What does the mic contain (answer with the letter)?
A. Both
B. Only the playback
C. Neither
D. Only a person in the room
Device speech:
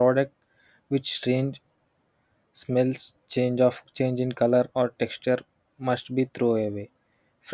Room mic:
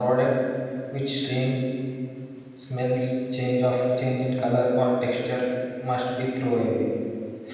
B